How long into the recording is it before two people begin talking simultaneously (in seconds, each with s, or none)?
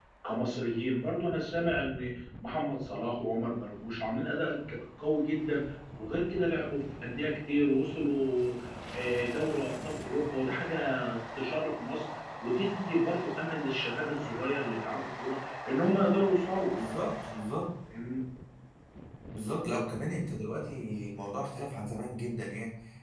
none